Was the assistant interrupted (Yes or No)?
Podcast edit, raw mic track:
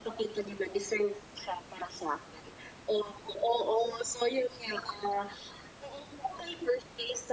No